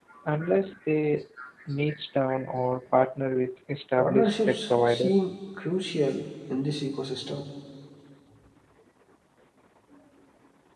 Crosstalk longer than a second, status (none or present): present